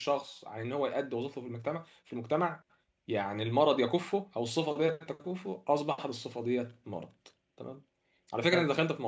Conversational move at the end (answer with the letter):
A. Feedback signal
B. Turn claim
A